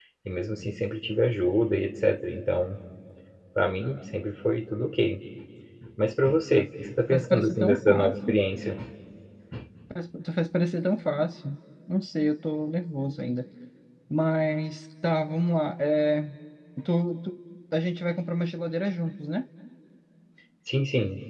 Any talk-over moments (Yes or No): Yes